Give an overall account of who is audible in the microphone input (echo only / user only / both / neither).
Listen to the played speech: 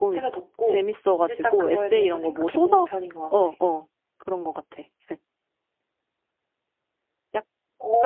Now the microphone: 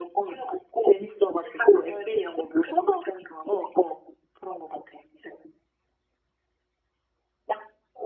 echo only